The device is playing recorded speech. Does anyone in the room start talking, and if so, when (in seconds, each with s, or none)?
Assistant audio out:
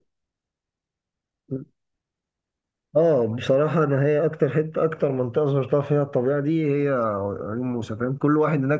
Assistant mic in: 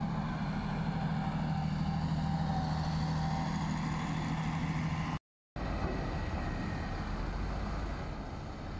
none